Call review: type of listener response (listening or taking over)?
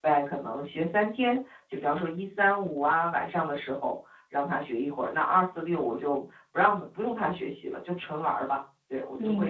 taking over